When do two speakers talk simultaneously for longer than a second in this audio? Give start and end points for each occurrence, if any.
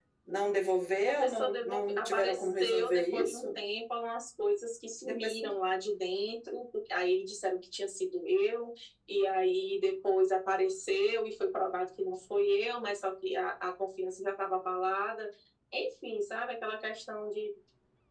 1.1-3.6

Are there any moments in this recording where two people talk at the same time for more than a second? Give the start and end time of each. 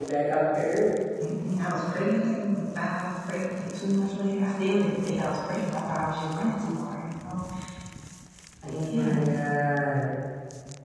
none

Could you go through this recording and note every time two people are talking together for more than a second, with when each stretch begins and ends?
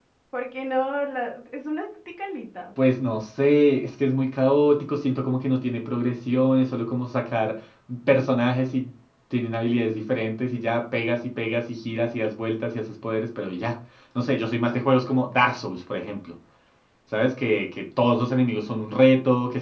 none

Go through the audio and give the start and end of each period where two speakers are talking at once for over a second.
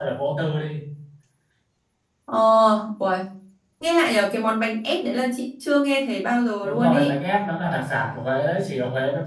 none

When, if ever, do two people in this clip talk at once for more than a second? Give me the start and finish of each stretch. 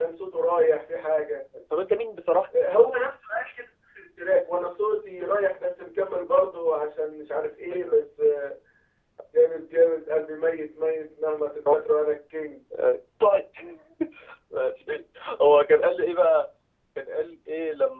none

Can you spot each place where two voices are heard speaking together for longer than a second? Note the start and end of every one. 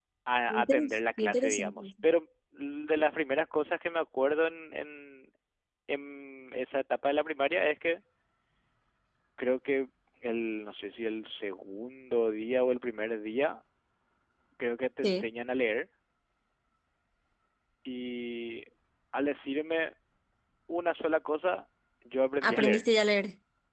0.5-1.9

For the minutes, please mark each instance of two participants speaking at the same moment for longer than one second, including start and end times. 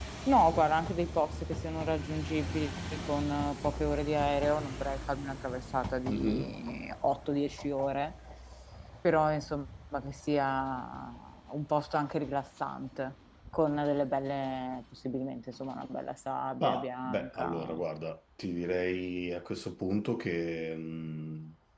16.6-17.8

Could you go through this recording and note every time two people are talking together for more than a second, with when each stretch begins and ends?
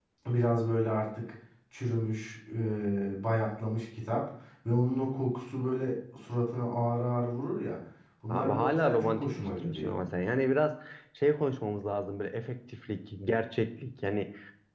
8.3-9.9

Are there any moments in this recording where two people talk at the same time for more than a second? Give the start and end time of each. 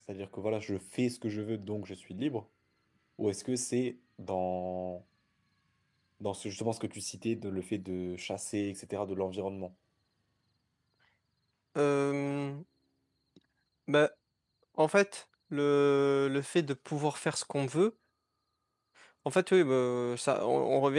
none

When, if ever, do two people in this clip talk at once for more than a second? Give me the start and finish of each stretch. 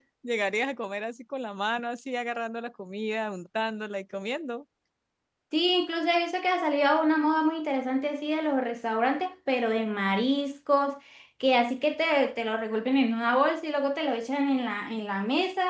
none

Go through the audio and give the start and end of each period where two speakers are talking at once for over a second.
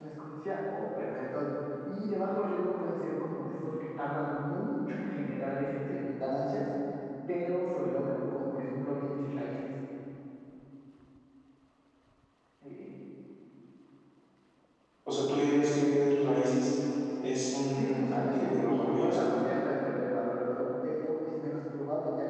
17.7-19.3

